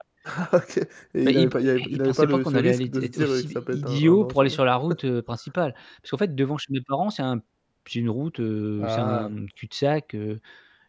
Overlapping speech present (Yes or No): Yes